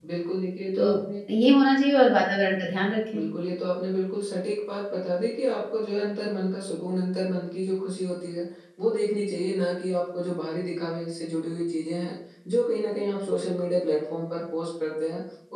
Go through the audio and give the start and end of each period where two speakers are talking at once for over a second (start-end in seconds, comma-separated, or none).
none